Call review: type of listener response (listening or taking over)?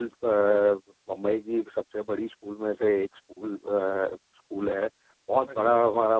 listening